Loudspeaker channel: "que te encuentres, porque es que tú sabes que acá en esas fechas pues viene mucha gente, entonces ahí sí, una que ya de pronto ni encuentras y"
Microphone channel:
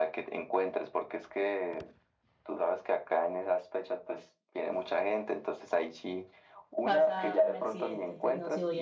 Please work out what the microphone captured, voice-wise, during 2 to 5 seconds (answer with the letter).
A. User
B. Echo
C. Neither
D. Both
B